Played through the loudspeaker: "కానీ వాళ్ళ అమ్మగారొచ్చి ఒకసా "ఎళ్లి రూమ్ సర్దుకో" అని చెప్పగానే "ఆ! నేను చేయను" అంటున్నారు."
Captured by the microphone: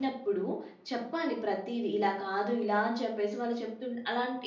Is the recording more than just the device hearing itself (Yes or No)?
Yes